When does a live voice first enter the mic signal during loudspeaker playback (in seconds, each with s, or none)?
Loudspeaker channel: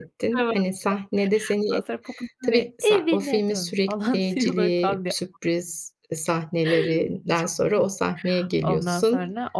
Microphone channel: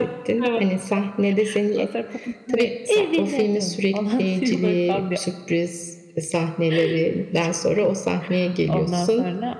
none